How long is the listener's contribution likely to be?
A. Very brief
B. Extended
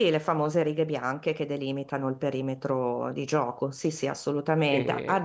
A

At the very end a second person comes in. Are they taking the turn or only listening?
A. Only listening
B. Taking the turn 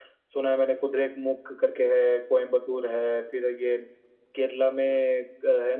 A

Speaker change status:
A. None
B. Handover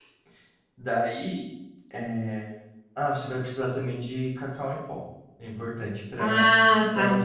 A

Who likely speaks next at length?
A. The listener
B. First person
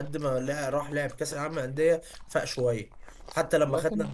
B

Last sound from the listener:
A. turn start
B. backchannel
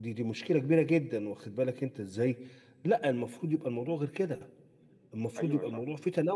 B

